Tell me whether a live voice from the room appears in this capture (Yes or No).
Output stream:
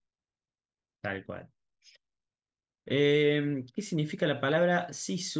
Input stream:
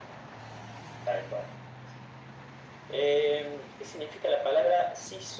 No